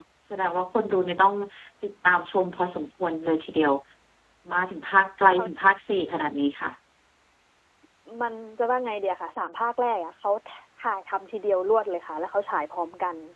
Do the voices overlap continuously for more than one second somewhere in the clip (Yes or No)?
No